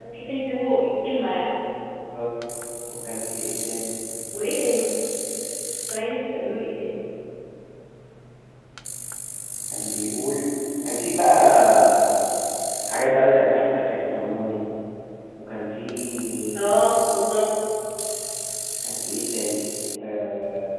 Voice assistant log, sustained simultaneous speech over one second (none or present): none